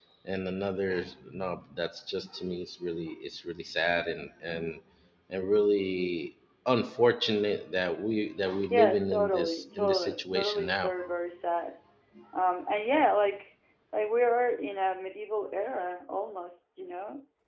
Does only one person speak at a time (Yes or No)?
No